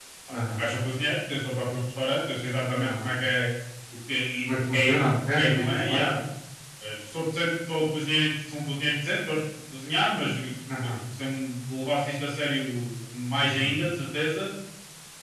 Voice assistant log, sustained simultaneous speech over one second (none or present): present